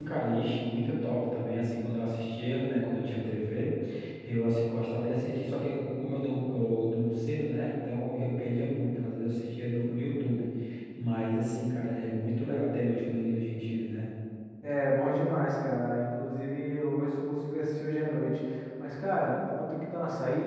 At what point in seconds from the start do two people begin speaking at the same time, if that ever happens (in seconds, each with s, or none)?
none